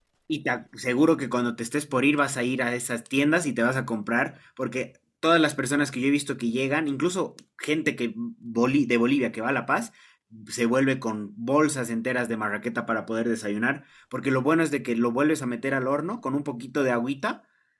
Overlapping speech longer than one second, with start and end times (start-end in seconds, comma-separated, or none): none